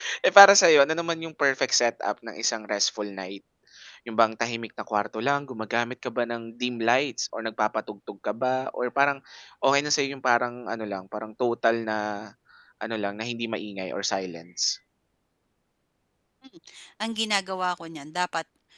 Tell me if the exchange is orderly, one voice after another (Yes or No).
Yes